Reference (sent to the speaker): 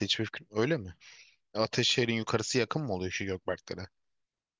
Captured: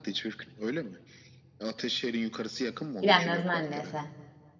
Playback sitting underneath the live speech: Yes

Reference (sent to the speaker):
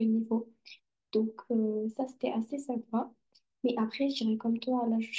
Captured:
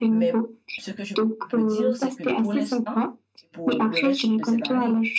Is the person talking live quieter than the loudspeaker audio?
Yes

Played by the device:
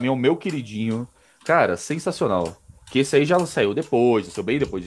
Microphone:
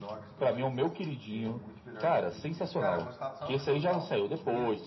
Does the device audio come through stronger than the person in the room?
Yes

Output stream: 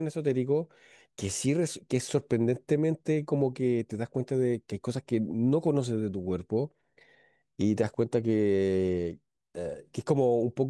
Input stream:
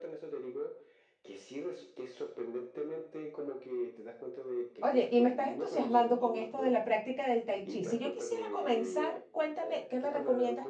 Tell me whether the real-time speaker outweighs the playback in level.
Yes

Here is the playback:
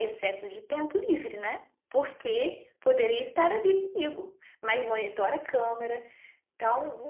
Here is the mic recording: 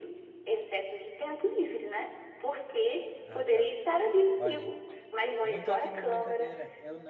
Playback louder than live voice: Yes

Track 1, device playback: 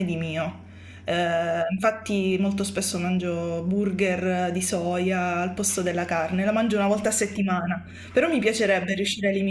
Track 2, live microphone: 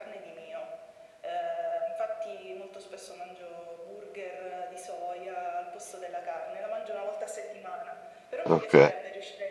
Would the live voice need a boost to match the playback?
No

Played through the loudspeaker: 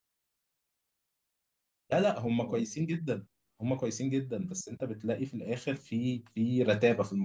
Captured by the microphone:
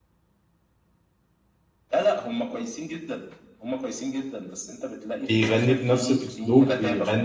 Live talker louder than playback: Yes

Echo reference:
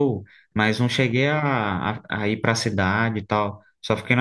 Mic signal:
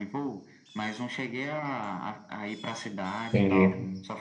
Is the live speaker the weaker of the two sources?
No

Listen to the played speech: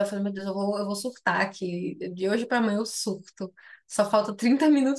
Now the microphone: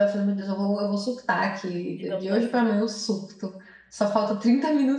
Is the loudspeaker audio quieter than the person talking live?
No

